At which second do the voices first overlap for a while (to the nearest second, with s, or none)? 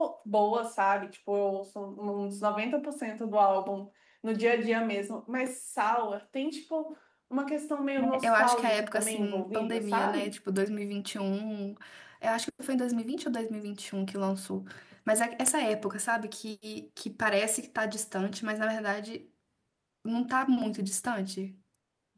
8 s